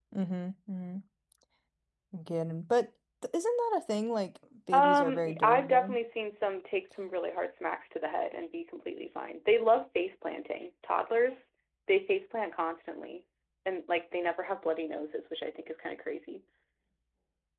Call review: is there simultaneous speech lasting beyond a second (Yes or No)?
Yes